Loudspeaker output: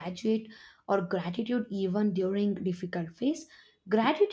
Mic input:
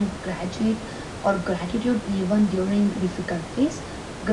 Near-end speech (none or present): none